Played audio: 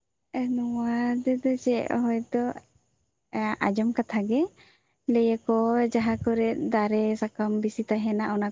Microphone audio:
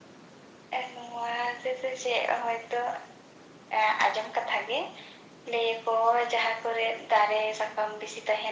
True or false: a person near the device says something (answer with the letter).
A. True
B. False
B